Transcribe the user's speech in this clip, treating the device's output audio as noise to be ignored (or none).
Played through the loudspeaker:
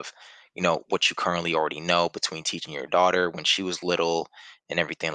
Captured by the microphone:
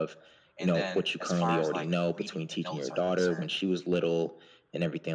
And then as far as like reading the notes are concerned,